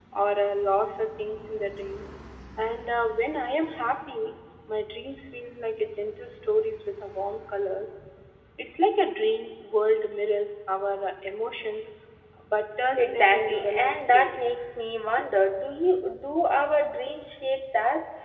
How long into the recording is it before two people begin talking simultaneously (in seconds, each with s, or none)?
12.9 s